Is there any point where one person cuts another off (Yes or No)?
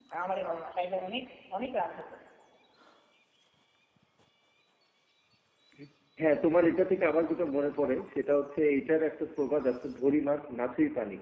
No